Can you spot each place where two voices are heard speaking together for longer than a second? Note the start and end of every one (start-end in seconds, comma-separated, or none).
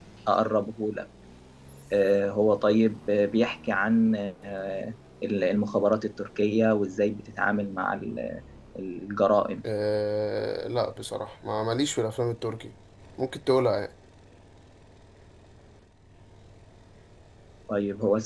none